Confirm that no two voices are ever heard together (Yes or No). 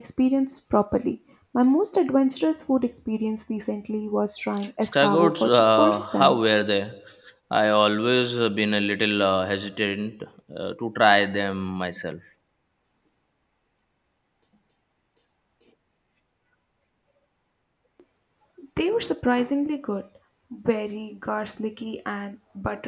No